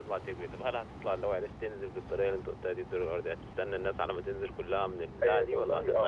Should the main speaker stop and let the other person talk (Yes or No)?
Yes